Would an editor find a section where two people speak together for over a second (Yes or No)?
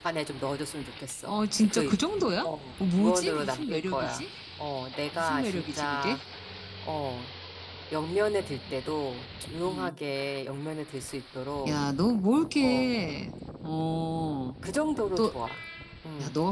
Yes